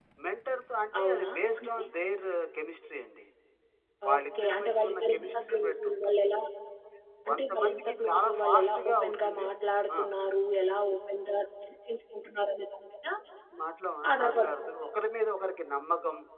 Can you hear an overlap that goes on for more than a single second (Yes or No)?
Yes